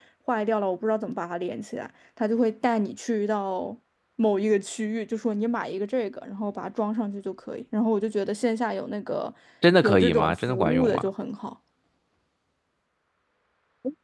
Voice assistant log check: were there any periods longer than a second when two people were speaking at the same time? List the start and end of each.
9.8-11.1

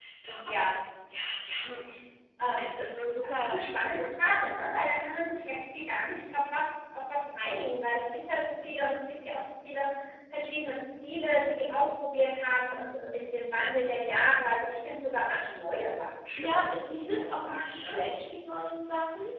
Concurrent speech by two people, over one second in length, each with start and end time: 16.4-18.0

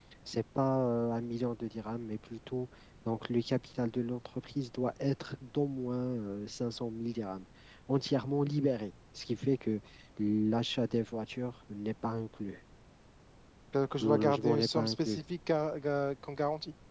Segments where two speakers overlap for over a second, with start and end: 14.0-15.2

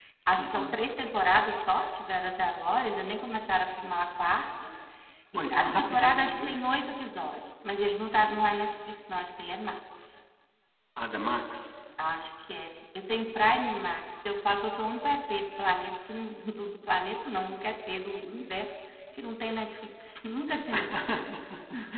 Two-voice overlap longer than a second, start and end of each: 5.3-6.6

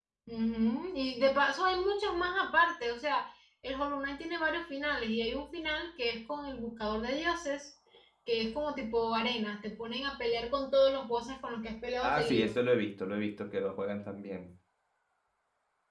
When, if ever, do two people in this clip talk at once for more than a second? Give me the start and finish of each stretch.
none

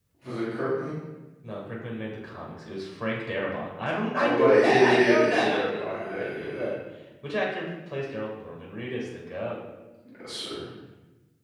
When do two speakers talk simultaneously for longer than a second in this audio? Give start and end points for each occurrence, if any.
4.2-6.6

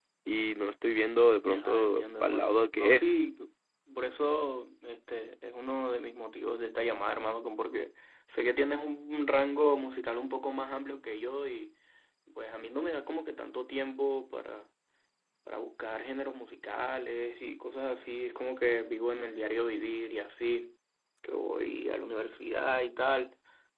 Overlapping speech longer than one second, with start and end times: 1.4-3.1

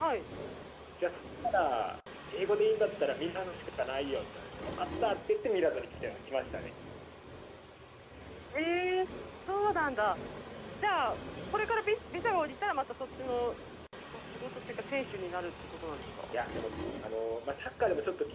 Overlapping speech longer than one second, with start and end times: none

